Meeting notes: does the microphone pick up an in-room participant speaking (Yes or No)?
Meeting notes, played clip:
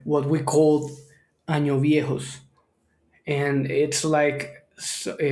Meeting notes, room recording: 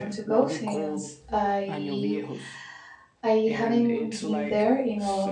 Yes